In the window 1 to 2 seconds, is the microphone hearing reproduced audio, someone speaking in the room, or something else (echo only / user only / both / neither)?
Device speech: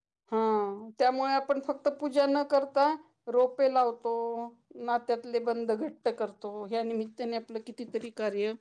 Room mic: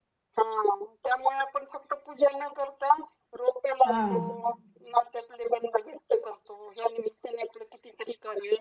echo only